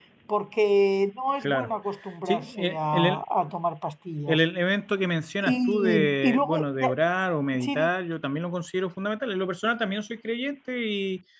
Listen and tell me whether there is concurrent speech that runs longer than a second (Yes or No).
Yes